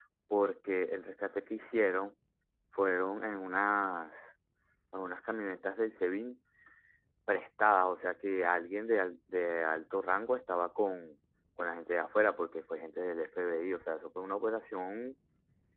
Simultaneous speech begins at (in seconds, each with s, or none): none